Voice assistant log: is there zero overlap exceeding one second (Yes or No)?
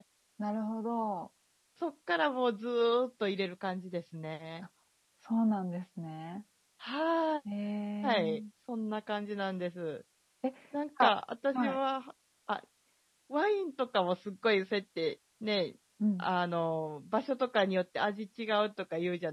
Yes